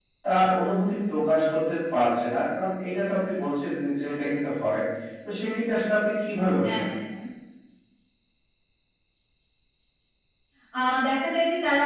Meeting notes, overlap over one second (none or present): none